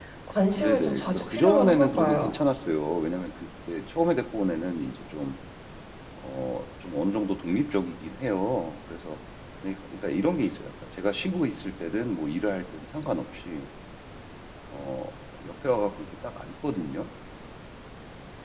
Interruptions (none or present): present